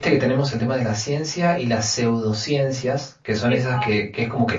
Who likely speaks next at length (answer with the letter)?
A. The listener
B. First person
B